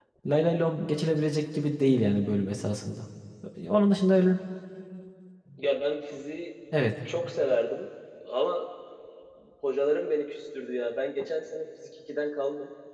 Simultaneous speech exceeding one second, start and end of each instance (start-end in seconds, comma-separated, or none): none